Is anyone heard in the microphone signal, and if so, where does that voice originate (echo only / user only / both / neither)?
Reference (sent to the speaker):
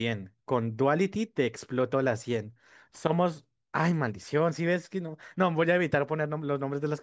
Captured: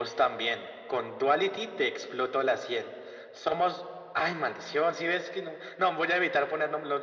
echo only